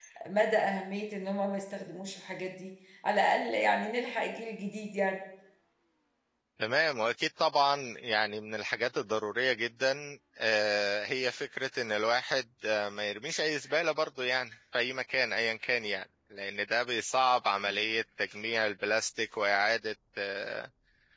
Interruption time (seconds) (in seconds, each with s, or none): none